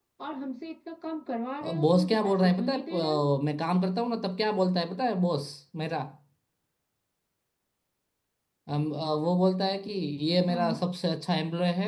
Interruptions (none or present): present